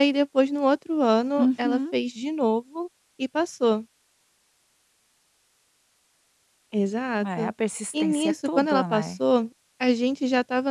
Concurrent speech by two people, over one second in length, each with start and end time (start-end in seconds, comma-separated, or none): 7.9-9.2